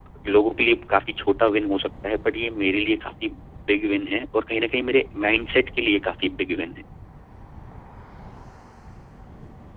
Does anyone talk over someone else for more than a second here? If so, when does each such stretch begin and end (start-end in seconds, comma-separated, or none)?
none